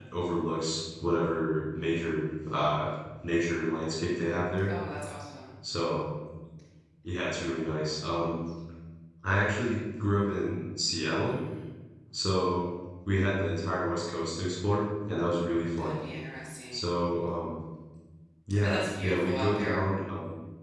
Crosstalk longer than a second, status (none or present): present